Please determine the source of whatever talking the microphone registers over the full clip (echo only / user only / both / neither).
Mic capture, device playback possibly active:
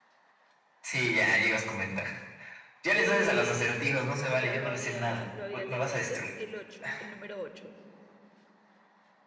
both